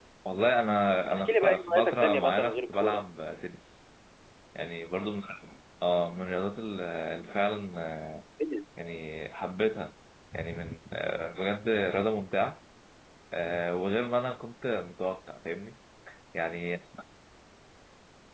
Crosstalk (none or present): present